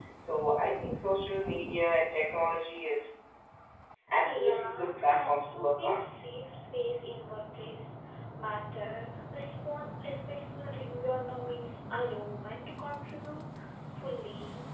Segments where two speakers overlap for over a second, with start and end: 4.2-6.0

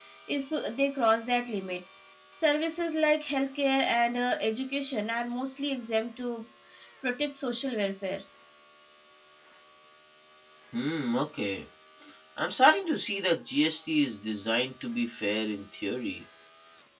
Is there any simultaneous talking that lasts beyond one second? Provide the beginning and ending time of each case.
none

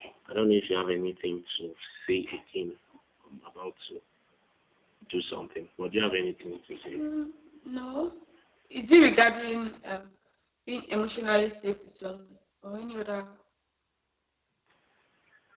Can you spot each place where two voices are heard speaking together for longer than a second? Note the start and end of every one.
none

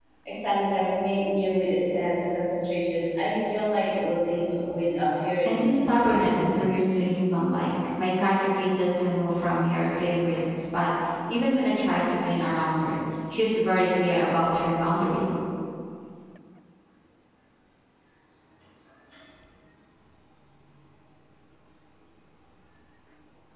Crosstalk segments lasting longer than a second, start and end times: 5.4-6.7

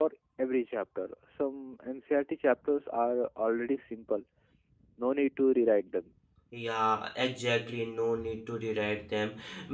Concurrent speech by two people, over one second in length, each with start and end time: none

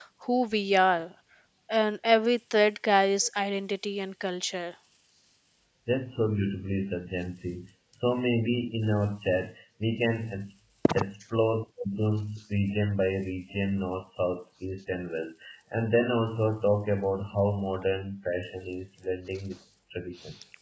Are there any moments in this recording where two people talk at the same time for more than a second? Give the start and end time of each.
none

